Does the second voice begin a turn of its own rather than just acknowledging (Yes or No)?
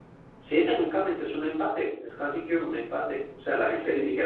No